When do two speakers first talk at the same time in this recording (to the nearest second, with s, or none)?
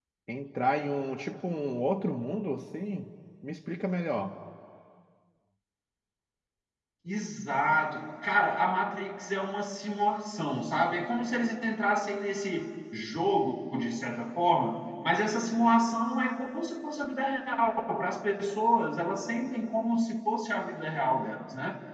none